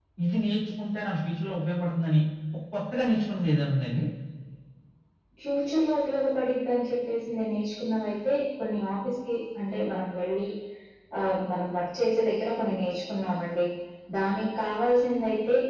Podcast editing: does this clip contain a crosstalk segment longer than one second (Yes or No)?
No